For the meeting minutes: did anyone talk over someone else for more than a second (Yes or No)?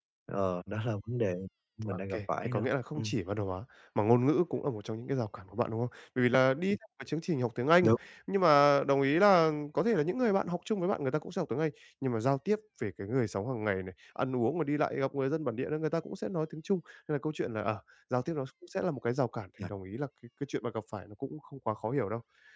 Yes